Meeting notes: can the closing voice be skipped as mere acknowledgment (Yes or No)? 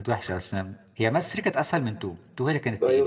No